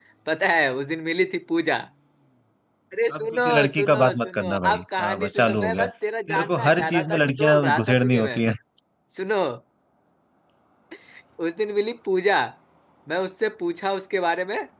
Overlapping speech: Yes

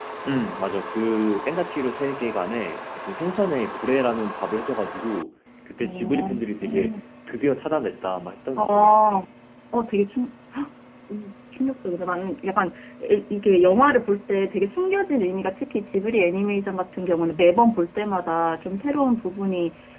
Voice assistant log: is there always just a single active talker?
No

